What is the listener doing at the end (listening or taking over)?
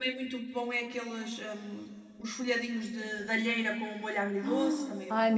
taking over